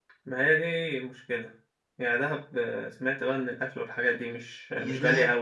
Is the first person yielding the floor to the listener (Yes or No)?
Yes